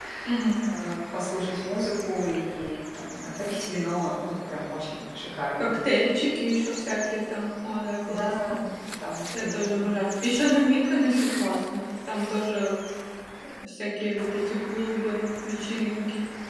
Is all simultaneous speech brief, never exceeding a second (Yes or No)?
Yes